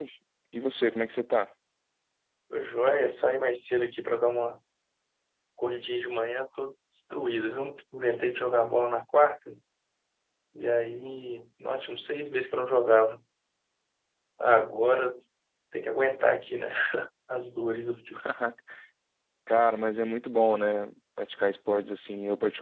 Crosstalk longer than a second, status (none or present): none